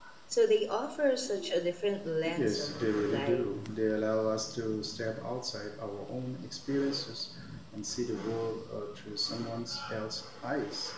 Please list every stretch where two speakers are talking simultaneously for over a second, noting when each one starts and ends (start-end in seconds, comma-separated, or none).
2.2-3.4